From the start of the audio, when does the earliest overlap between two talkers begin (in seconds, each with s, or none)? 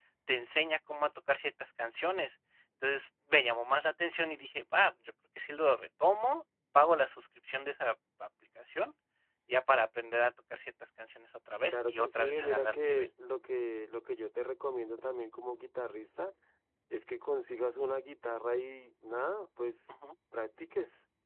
11.7 s